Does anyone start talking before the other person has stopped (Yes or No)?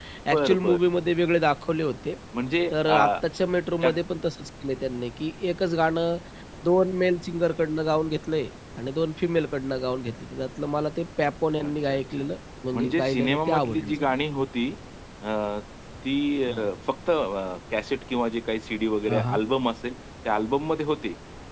Yes